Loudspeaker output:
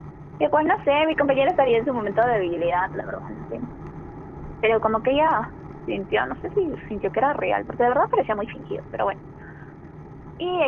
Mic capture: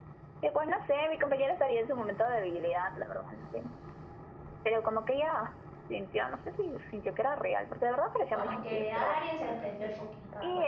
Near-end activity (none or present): present